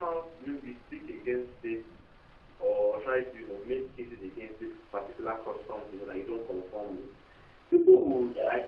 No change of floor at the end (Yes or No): Yes